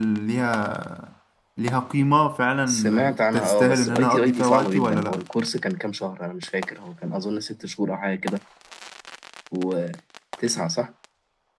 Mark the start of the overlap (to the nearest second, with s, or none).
3 s